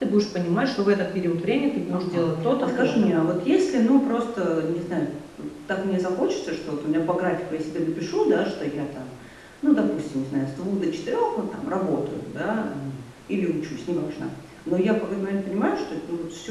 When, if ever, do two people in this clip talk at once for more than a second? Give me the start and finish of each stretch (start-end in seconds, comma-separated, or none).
1.9-3.1